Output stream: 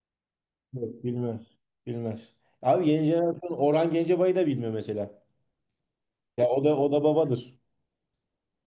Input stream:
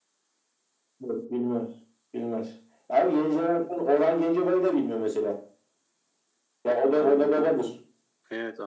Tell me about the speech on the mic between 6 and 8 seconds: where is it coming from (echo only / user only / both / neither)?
both